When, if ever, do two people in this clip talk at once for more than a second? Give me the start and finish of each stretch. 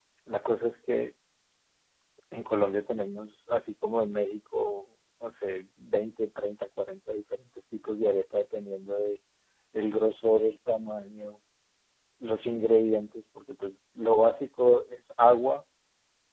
none

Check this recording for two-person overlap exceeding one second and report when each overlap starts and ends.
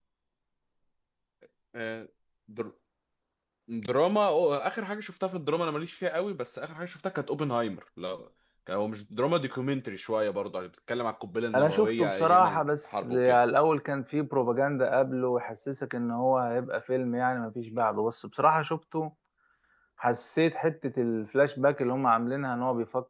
11.6-13.4

